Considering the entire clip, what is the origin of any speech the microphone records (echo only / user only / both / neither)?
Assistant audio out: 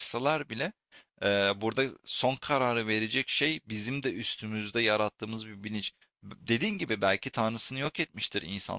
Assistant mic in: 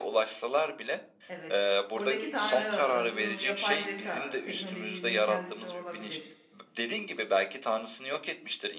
both